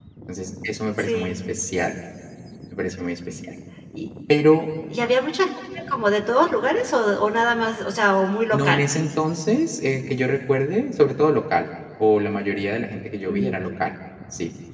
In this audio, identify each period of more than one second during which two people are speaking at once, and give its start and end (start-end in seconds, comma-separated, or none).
none